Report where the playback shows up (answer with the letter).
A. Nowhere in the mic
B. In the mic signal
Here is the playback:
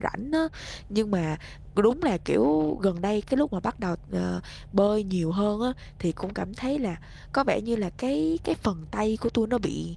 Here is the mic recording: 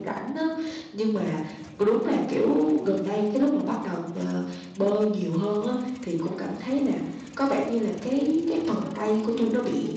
B